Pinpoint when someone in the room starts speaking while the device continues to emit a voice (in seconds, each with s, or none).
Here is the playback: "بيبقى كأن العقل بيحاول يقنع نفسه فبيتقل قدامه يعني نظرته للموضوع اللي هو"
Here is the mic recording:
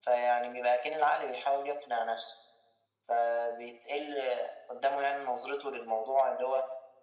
none